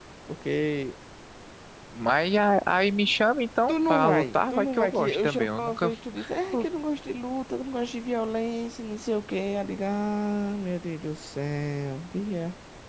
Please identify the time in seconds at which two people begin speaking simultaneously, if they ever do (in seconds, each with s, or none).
3.7 s